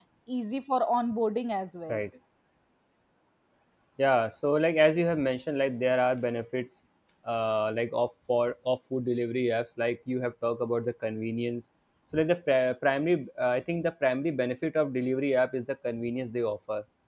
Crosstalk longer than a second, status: none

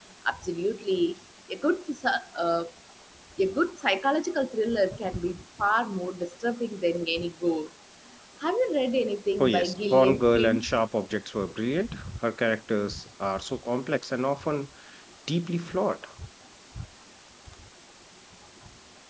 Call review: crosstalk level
present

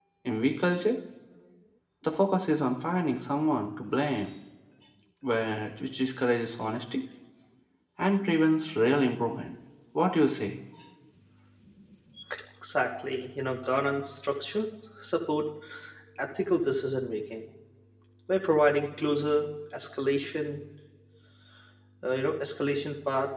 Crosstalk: none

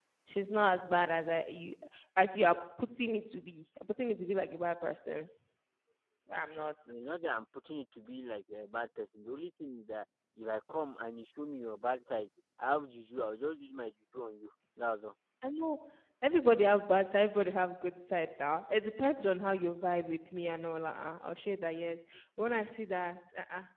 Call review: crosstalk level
none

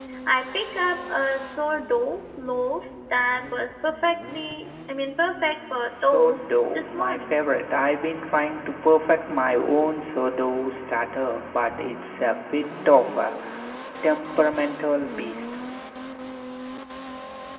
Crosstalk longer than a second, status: present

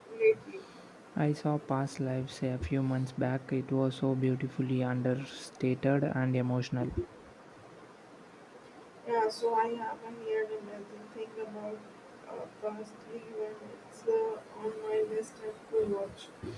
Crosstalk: none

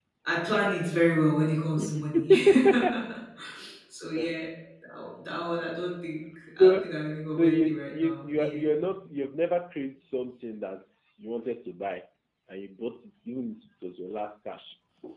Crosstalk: present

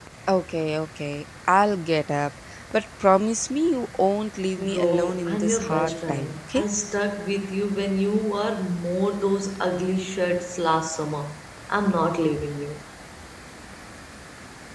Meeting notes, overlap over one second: present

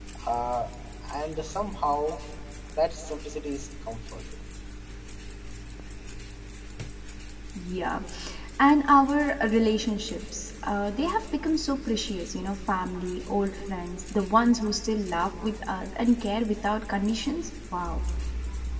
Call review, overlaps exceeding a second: none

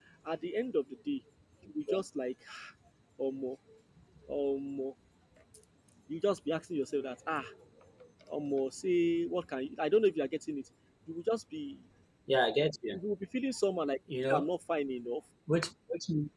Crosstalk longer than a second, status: none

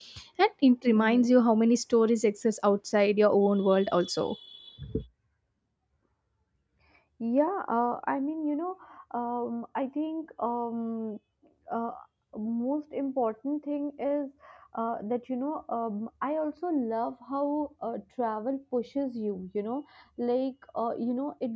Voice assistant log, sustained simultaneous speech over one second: none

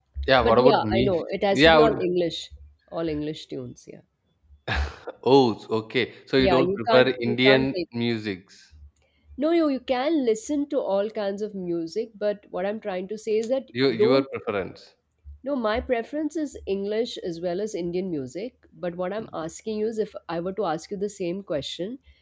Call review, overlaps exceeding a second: present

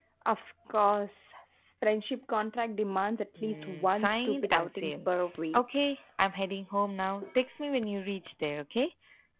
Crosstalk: present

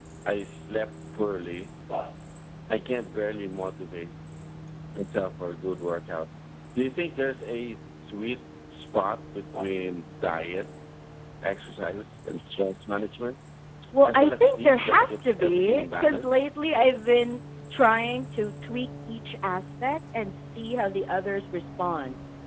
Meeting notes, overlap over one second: present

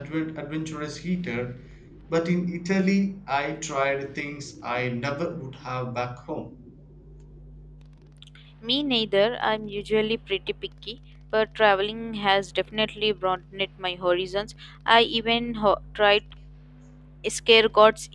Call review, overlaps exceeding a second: none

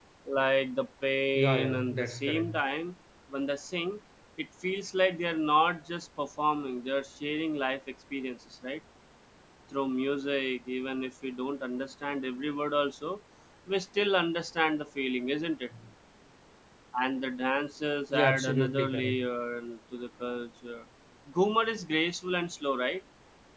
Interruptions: present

